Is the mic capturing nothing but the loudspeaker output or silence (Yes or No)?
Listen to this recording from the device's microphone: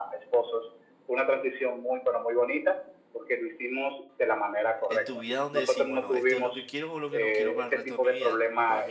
No